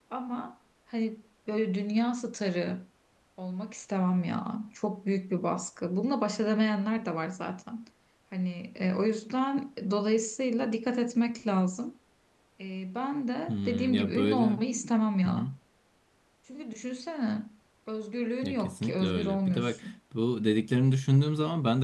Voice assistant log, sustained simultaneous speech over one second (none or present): present